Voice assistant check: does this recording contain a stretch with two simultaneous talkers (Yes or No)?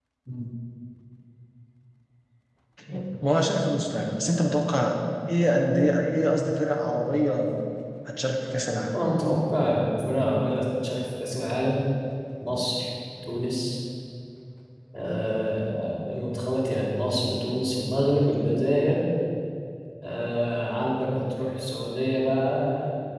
No